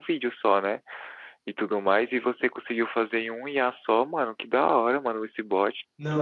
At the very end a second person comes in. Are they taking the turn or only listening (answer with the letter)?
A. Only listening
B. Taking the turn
B